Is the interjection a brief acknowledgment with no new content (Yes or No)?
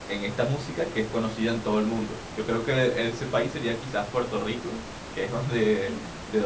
Yes